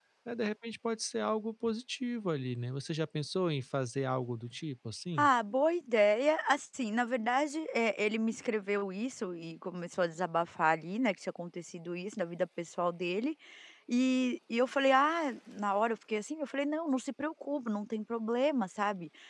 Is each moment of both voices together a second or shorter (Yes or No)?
Yes